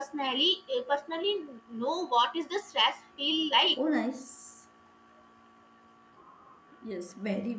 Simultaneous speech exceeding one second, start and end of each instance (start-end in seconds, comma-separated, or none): none